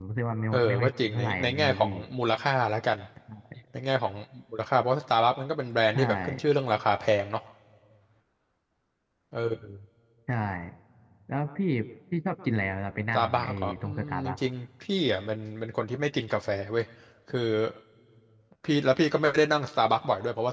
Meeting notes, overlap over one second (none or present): present